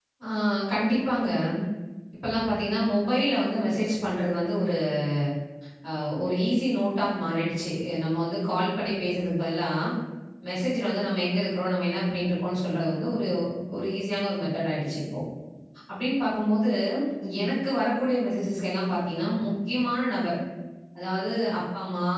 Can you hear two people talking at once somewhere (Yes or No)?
No